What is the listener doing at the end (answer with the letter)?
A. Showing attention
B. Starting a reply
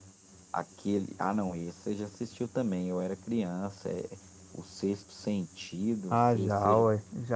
B